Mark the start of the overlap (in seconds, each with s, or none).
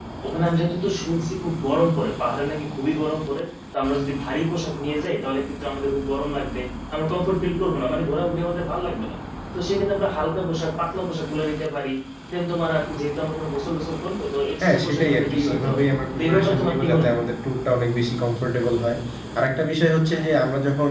14.6 s